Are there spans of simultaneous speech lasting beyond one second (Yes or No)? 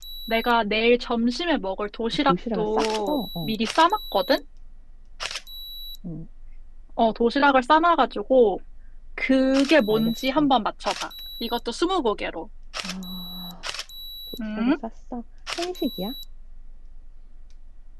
Yes